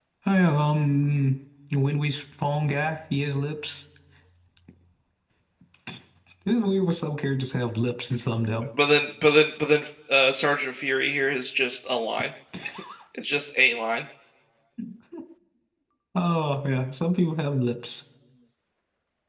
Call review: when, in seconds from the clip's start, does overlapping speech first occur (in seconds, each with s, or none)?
none